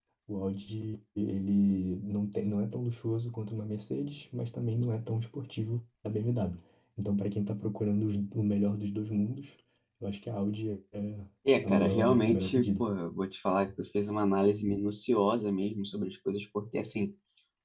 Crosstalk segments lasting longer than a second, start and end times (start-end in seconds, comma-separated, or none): 11.6-12.8